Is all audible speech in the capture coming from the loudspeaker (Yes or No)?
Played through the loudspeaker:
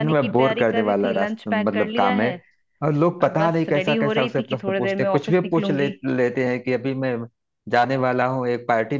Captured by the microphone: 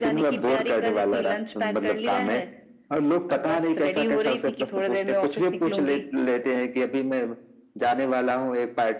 Yes